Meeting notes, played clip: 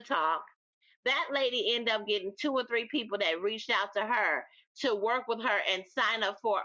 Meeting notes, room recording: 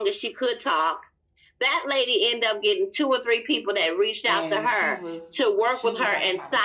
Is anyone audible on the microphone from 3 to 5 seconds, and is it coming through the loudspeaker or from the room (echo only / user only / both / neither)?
both